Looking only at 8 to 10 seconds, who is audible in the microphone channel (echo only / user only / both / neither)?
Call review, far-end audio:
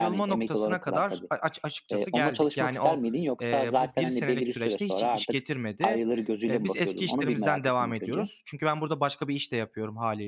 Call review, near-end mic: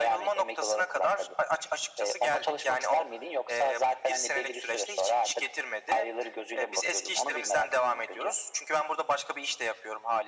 echo only